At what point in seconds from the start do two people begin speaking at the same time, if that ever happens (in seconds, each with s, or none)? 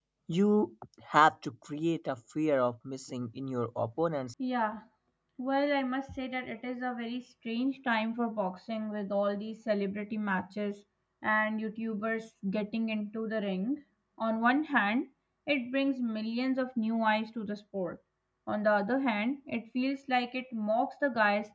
none